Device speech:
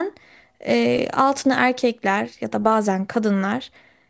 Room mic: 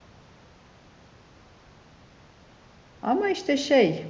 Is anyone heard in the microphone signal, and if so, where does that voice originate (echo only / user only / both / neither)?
user only